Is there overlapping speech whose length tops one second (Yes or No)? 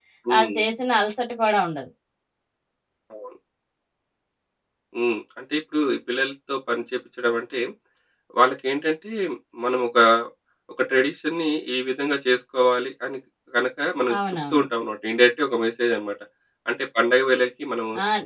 No